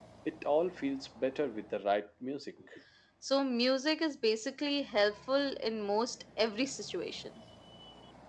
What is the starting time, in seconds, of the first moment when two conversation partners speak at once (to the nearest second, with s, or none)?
none